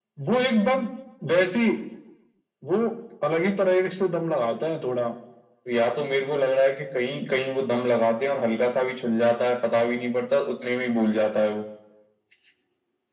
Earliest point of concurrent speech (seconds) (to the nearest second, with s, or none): none